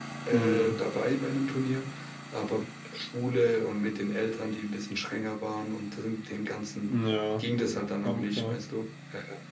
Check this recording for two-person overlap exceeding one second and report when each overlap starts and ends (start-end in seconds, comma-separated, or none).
none